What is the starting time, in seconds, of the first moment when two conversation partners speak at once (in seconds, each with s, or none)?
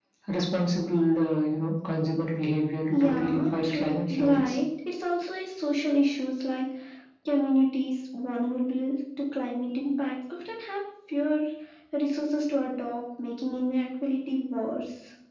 2.9 s